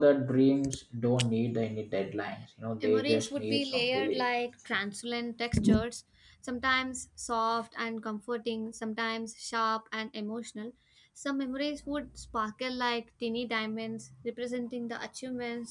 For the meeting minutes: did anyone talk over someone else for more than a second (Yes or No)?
Yes